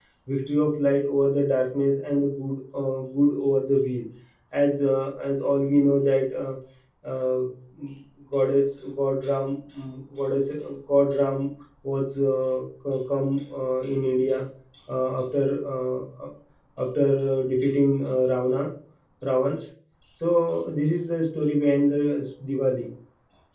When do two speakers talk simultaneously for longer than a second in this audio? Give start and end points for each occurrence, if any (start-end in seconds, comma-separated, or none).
none